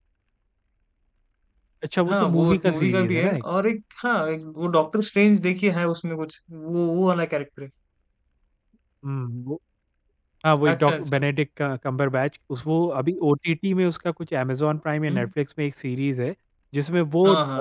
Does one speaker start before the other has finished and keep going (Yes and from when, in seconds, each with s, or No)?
Yes, from 2.1 s